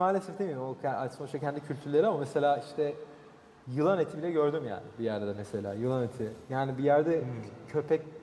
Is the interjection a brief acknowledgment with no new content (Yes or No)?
Yes